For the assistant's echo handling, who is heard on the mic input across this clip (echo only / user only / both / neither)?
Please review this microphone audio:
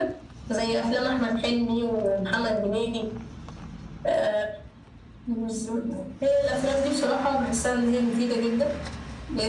echo only